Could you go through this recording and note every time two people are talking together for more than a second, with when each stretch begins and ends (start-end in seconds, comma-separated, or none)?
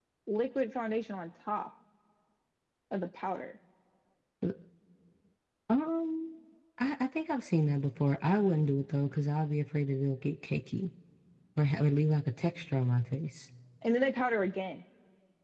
none